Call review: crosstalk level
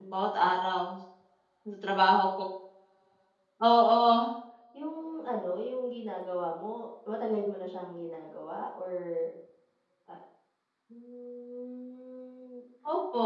none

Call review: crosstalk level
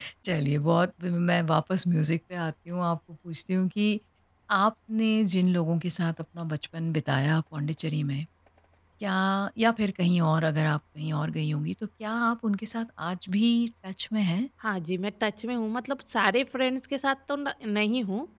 none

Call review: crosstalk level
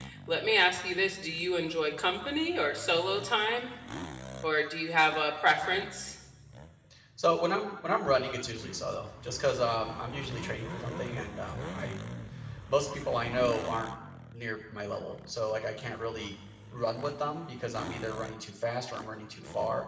none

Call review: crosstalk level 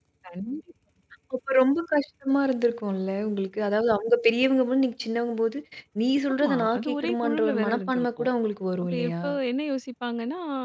present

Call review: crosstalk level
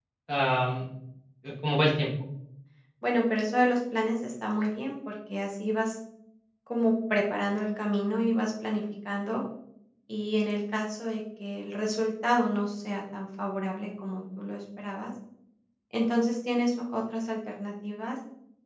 none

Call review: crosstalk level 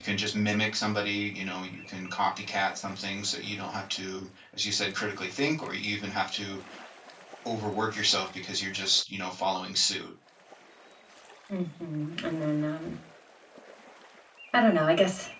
none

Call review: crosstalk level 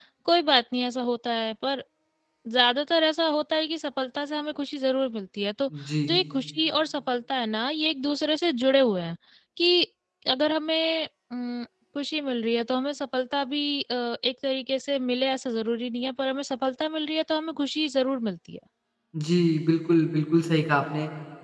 none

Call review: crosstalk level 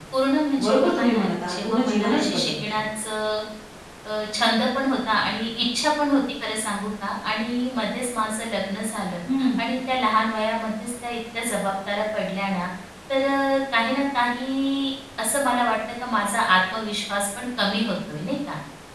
present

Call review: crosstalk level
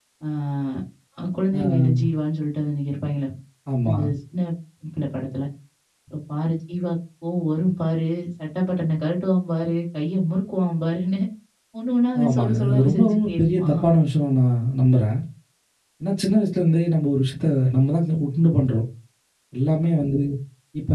present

